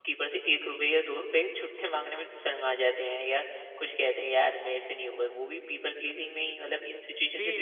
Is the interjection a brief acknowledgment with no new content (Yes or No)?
No